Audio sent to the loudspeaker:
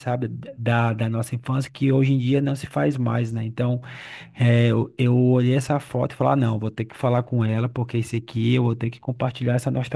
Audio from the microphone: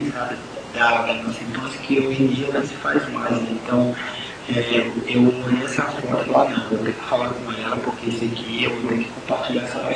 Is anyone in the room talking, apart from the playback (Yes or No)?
No